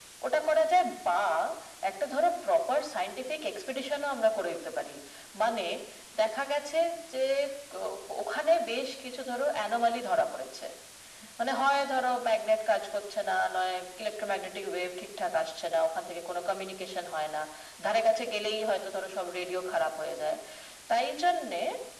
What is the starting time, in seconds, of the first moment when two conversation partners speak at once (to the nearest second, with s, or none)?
none